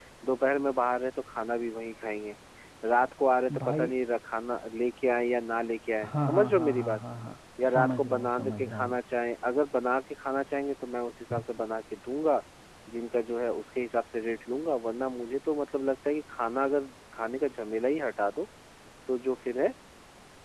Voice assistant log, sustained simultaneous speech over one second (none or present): present